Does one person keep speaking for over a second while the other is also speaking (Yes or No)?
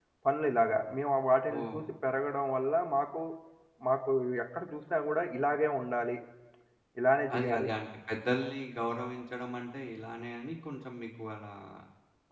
No